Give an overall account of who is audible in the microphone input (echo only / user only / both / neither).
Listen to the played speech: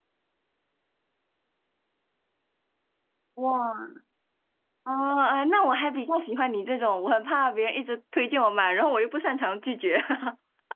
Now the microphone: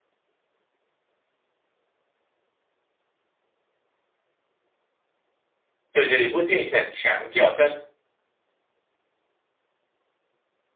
user only